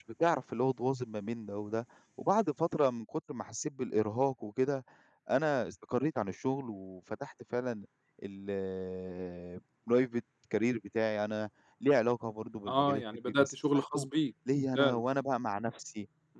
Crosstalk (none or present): present